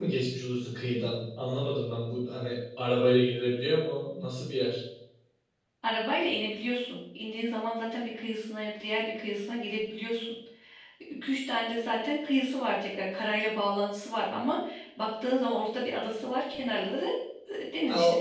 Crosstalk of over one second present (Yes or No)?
No